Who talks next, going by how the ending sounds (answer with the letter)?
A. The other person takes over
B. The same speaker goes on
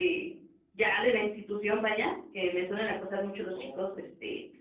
B